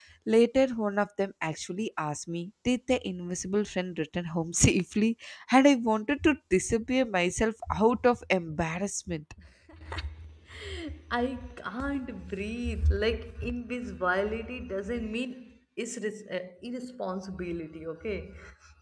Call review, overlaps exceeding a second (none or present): none